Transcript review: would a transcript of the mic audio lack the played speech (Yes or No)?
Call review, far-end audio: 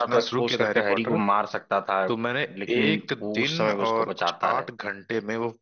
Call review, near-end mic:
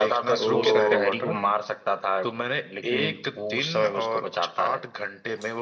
No